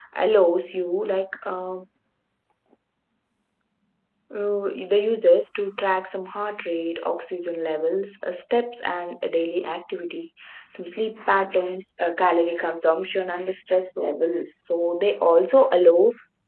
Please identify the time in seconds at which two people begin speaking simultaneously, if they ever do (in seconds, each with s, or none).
none